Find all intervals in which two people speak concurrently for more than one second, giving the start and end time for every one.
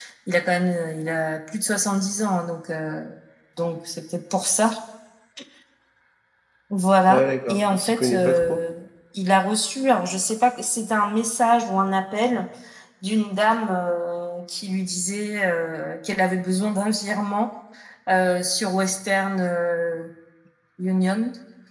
7.1-8.6

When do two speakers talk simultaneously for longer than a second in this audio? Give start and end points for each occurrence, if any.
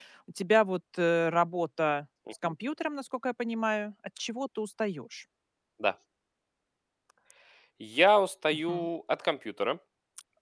none

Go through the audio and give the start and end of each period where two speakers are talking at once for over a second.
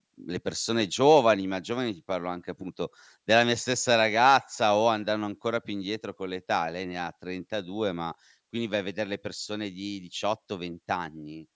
none

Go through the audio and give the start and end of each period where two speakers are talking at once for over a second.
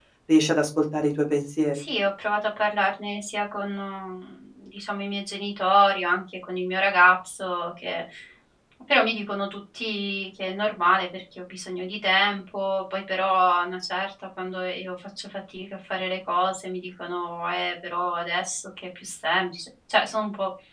none

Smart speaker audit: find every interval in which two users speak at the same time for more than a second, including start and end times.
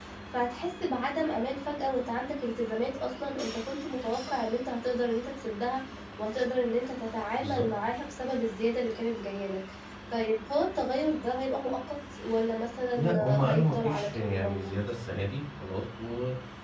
13.0-14.8

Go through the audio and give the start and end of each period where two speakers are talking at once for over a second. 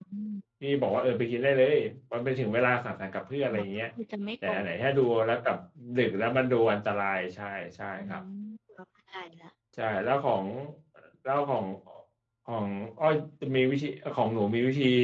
none

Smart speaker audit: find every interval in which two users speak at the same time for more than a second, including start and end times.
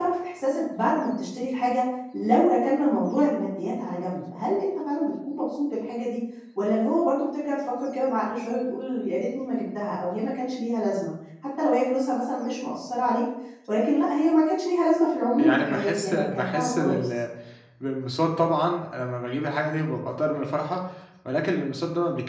15.4-17.1

